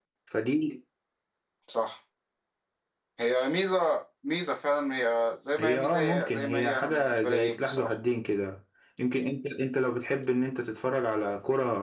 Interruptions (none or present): present